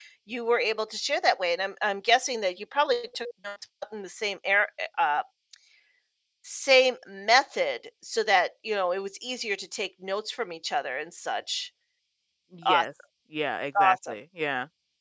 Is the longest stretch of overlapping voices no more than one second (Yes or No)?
Yes